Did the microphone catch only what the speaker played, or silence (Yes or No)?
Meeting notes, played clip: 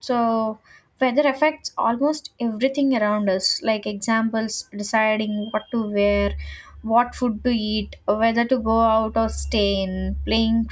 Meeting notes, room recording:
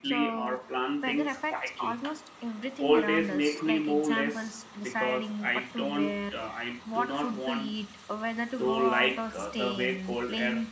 No